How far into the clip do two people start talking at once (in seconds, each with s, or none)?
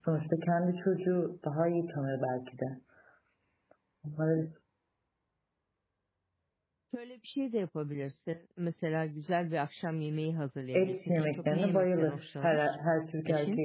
10.7 s